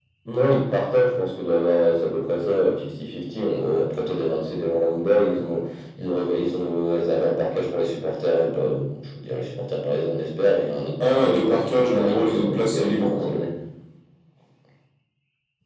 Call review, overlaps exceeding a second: present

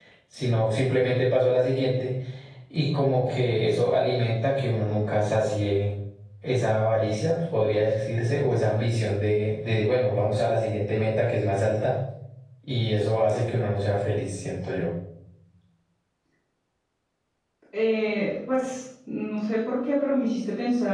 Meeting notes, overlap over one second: none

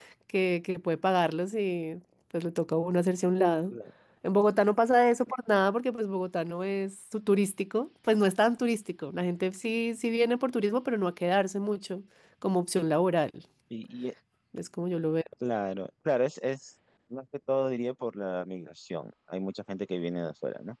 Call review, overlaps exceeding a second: none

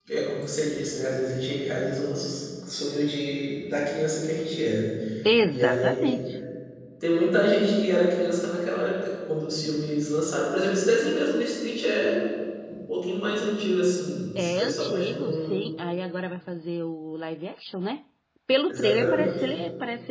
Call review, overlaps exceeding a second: present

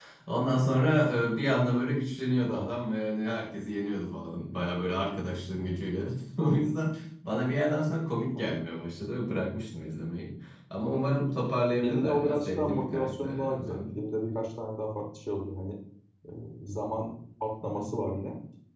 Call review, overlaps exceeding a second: present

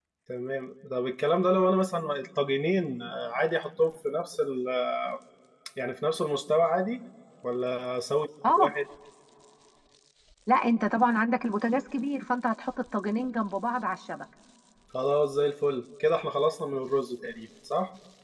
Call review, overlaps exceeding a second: none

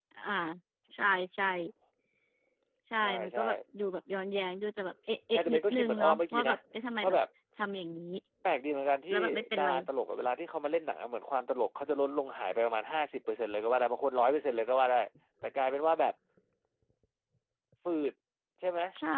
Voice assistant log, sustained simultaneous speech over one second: present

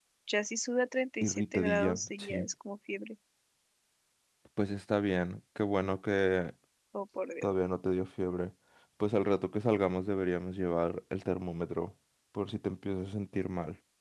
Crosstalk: present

